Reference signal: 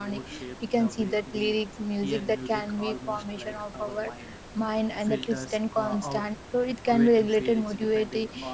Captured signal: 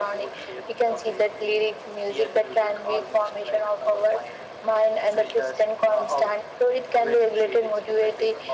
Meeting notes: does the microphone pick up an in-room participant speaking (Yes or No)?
No